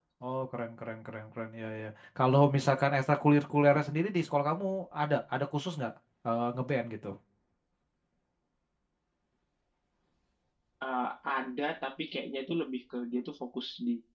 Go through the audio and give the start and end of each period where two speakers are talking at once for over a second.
none

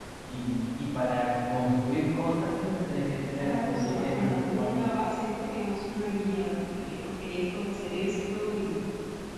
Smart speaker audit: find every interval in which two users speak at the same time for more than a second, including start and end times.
3.4-4.9

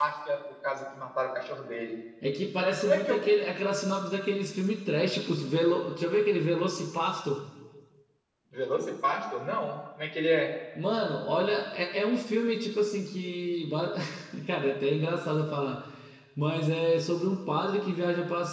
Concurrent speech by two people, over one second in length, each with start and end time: none

